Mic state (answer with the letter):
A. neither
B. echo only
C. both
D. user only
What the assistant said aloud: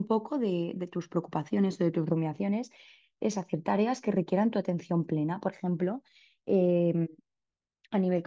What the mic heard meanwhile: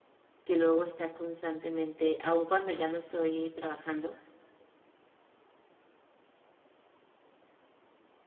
D